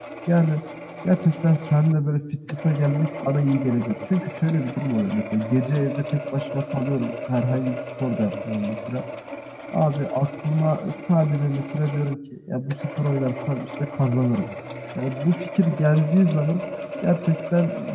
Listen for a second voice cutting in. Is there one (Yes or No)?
No